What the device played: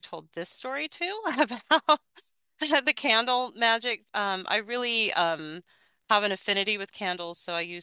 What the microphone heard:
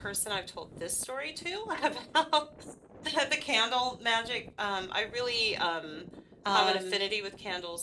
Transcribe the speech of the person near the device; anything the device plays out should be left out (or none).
Um,